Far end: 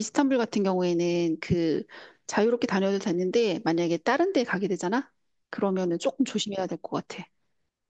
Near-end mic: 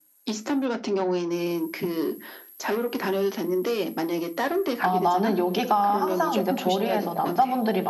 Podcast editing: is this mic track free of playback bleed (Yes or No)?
No